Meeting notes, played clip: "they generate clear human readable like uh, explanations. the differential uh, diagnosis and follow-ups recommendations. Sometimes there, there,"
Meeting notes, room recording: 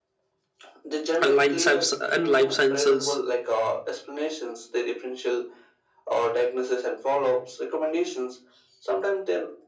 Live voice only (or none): and life science and life sciences.